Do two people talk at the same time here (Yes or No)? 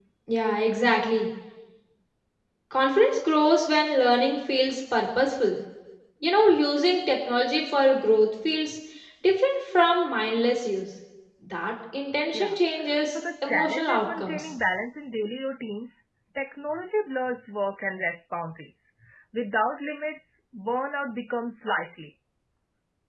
Yes